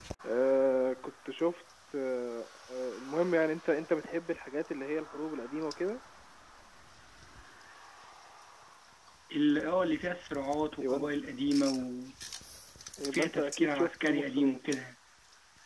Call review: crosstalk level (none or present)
present